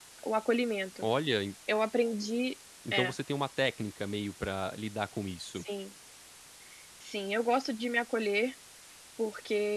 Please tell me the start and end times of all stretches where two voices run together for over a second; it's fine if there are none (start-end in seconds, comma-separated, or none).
none